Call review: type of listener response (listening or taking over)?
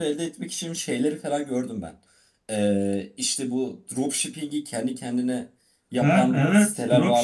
taking over